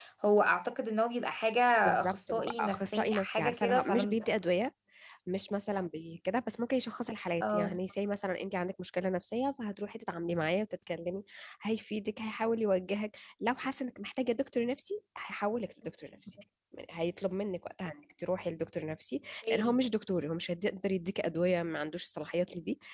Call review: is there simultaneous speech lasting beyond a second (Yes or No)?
Yes